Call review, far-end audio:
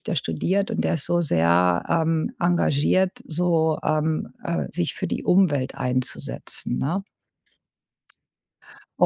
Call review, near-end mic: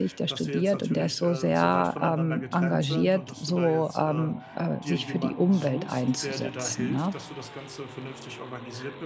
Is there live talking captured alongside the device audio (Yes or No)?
Yes